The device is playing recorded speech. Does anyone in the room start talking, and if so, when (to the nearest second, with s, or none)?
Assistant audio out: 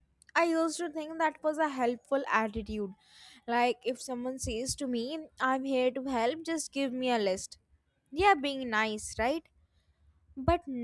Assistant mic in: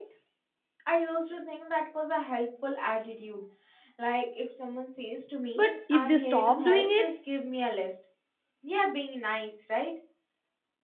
6 s